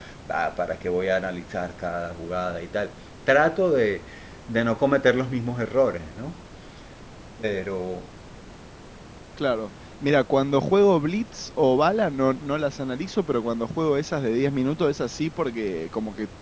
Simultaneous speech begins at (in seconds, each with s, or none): none